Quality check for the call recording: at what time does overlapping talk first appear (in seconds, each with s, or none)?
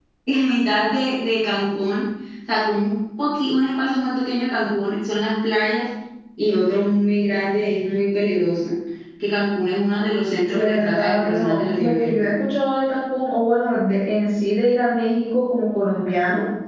10.5 s